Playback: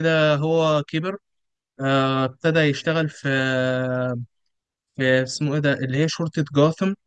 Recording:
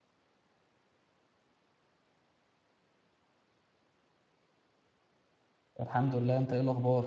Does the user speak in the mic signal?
Yes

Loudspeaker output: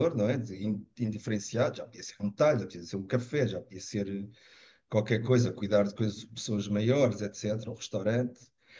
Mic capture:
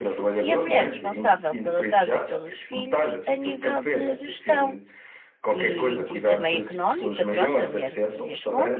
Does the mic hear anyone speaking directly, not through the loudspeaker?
Yes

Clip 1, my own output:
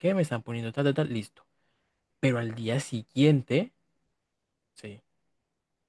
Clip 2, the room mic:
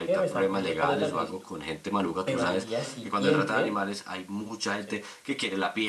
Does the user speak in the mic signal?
Yes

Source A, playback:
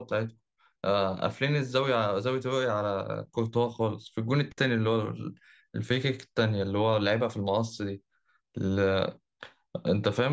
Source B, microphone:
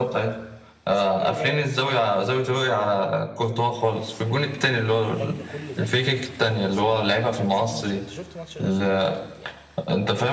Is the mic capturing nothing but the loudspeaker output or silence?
No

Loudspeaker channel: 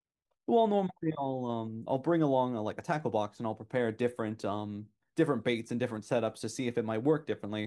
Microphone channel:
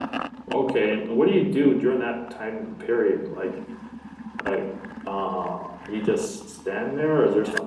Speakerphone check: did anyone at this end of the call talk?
Yes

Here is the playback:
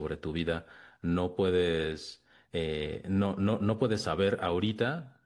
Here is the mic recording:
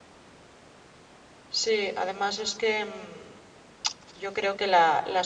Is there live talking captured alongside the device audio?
Yes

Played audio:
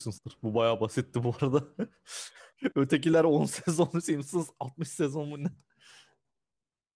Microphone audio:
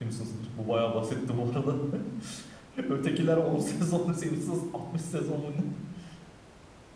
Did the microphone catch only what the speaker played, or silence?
Yes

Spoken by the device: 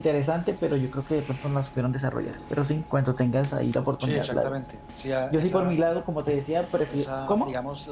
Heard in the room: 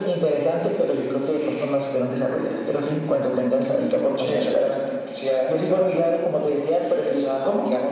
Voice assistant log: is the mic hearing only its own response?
Yes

